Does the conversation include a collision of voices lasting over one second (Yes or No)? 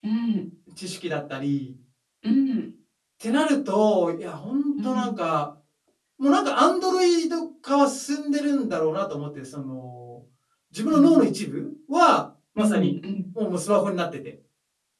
No